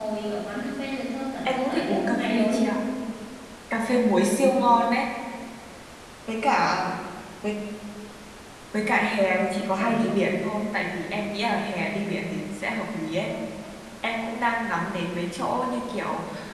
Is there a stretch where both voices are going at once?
Yes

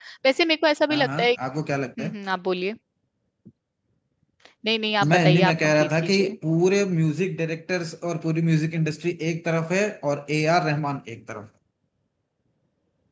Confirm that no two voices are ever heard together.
No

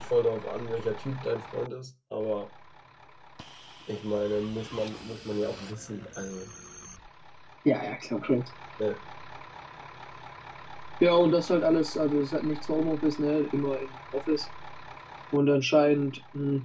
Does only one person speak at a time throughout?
Yes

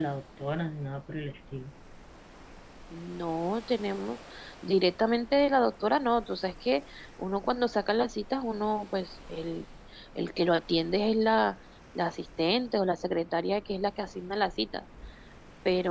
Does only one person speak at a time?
Yes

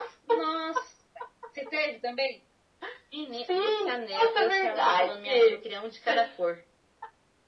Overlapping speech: Yes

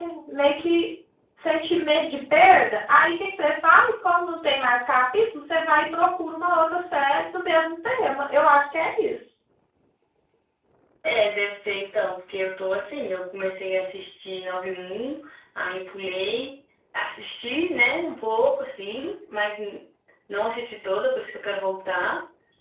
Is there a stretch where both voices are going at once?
No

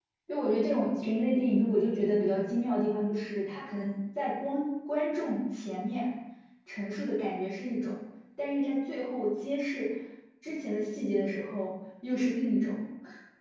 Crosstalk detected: No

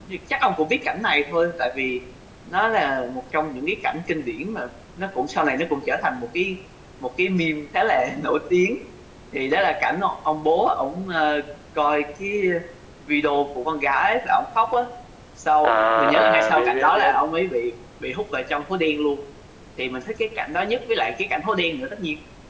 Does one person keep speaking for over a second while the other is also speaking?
Yes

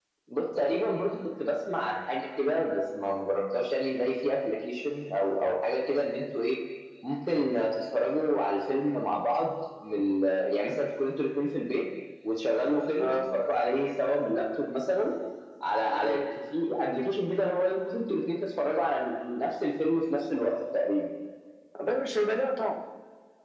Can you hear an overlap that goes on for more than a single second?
No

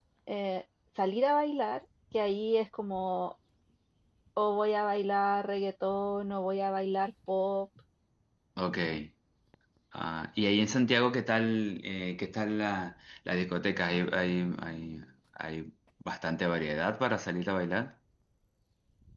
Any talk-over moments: No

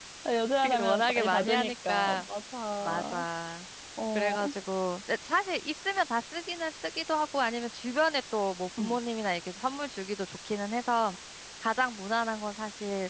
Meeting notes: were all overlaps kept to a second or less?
No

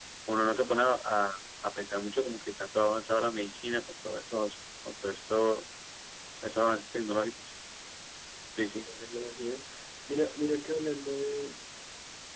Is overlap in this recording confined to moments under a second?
Yes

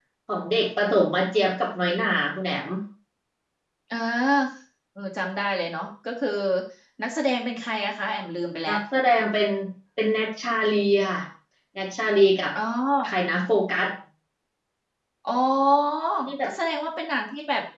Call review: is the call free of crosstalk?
Yes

